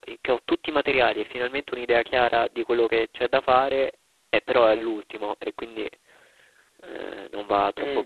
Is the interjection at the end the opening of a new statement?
Yes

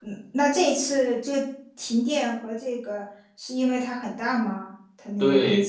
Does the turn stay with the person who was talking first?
No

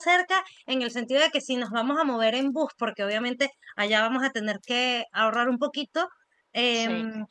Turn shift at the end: No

